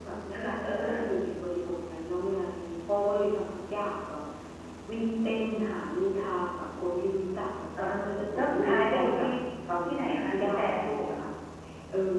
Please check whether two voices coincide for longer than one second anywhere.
Yes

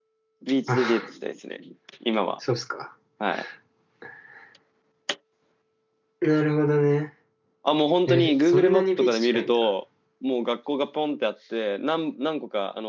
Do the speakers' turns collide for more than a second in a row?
Yes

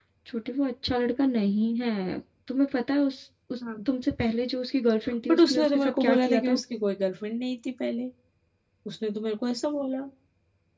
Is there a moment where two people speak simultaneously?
Yes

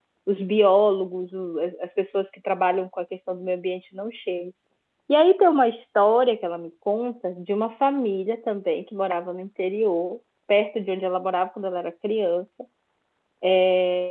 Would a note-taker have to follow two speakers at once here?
No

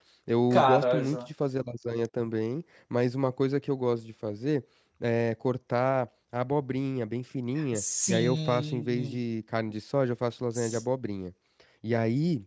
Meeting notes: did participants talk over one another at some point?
Yes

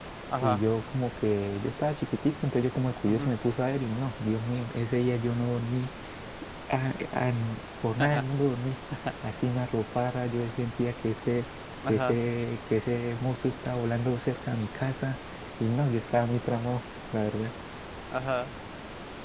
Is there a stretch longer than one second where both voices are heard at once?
No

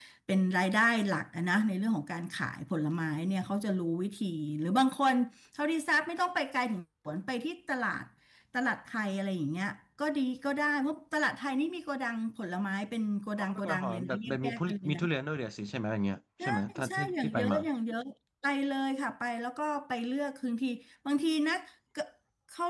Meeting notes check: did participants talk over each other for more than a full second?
Yes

